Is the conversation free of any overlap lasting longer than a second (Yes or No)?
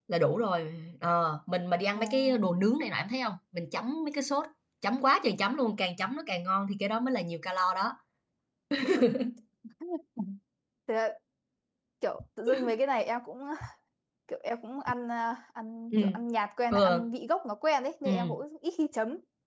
Yes